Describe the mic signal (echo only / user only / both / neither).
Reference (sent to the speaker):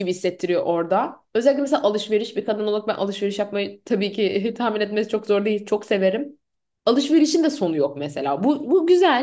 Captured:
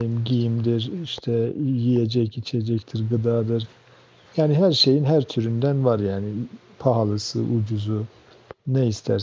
user only